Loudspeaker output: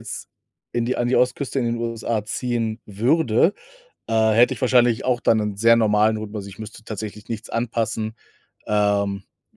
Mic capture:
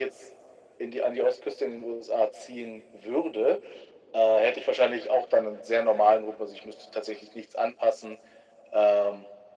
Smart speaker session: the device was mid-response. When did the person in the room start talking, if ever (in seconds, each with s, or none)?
none